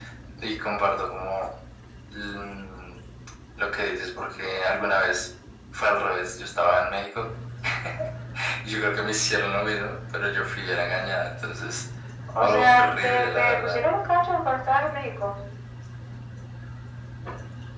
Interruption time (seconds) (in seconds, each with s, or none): 12.4 s